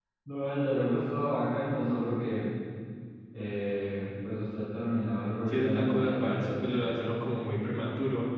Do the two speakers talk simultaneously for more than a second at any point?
Yes, from 5.5 s

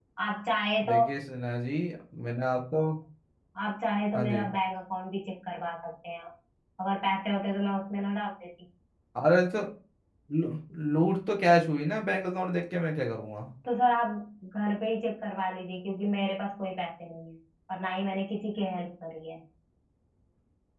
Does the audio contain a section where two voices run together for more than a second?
No

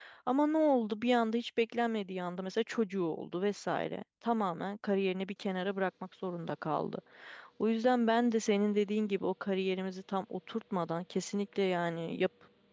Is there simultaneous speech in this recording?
No

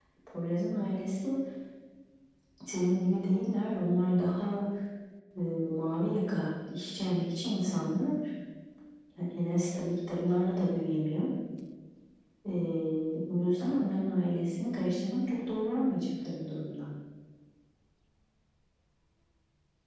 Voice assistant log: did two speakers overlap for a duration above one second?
No

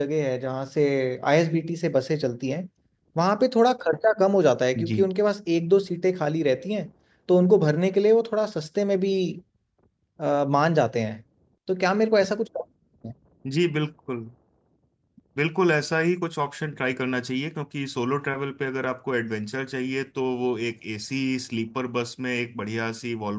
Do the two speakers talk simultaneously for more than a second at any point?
No

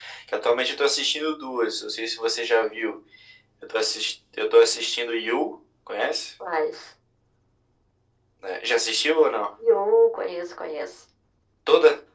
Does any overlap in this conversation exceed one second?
No

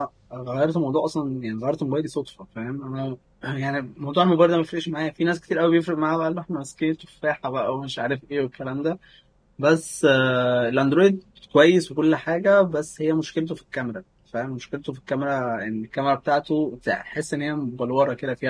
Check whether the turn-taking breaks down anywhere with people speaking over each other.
No

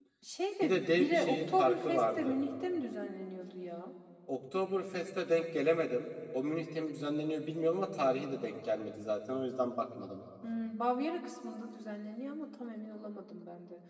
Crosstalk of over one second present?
Yes, from 0.6 s

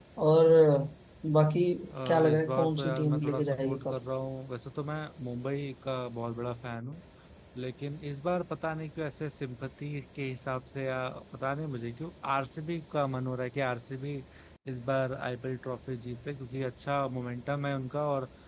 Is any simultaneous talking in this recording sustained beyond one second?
Yes, from 1.9 s

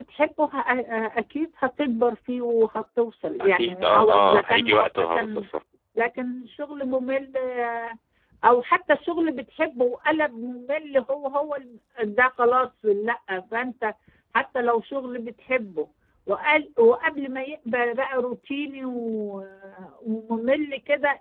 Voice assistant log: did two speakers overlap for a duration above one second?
Yes, from 3.4 s

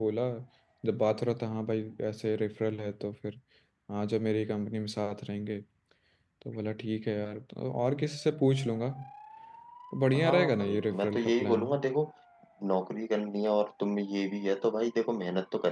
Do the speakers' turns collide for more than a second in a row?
Yes, from 10.2 s

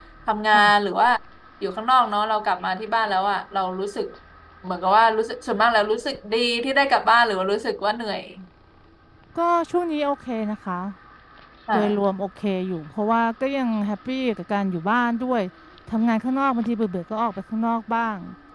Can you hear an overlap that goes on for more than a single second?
No

